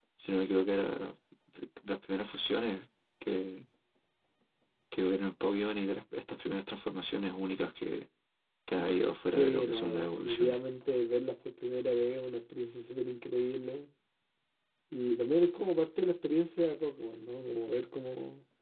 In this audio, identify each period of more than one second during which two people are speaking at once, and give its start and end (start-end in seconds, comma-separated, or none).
9.4-10.6